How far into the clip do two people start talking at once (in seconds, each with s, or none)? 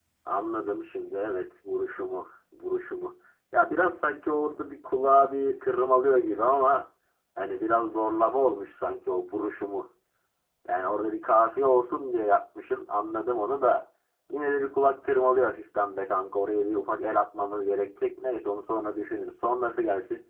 none